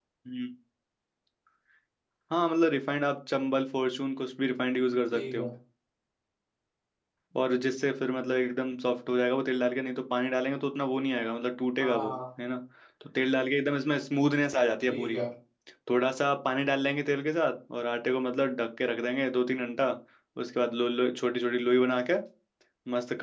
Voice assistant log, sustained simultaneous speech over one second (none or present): none